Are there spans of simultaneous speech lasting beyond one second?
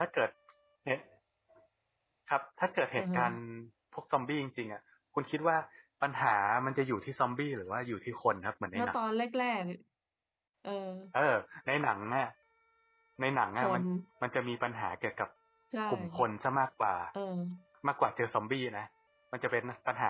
No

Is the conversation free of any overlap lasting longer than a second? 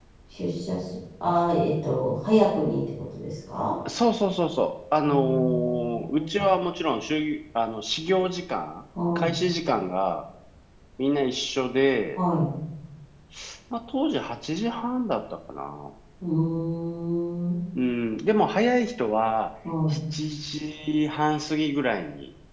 No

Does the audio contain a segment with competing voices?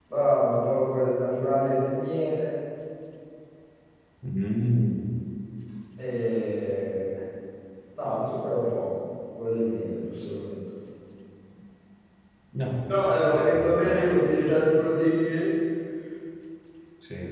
Yes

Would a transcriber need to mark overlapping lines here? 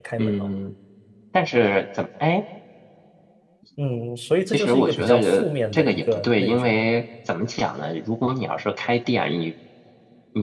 Yes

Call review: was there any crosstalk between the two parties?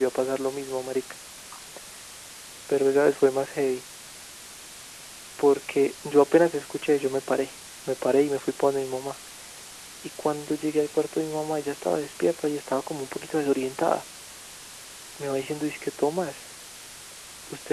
No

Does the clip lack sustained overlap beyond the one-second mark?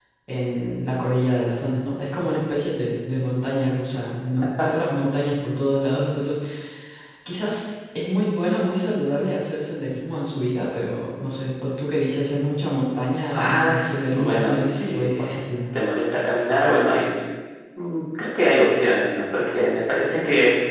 No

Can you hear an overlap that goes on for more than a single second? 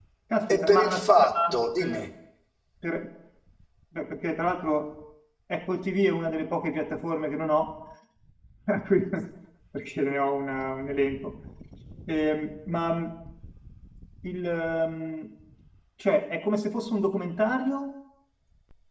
Yes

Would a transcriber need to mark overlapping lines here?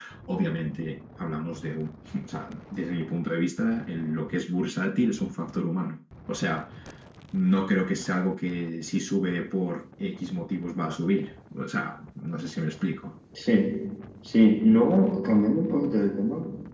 No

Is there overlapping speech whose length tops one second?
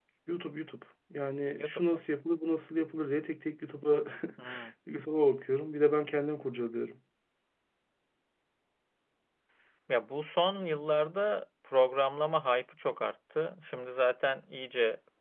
No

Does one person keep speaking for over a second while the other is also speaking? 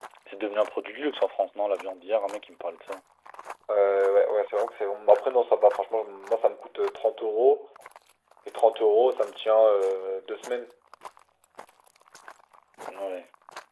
No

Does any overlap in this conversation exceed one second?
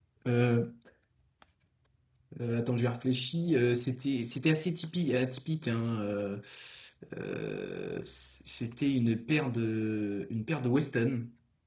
No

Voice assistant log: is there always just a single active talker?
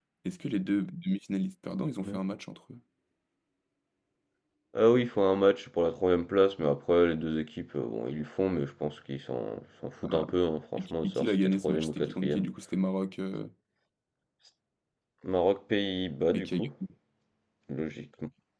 No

